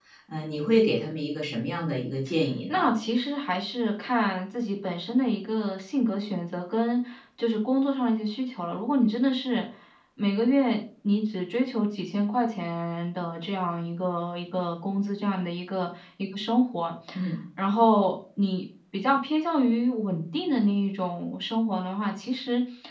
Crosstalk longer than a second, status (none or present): none